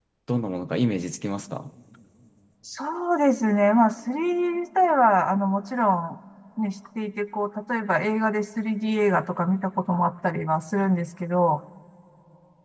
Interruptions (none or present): none